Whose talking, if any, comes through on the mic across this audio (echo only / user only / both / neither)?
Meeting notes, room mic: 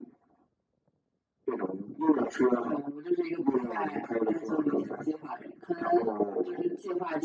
echo only